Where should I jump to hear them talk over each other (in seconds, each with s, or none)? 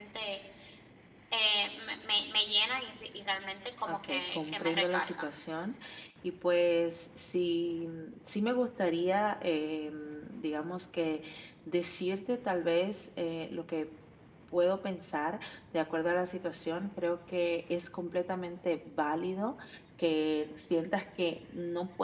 3.9 s